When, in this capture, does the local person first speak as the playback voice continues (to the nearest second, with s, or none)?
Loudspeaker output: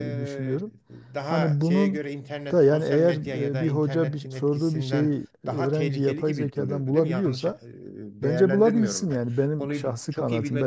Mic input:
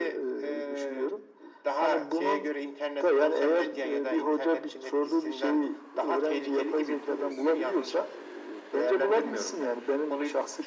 none